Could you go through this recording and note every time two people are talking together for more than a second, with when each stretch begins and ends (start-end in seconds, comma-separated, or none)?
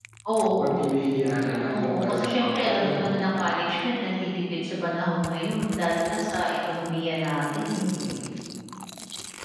1.8-3.2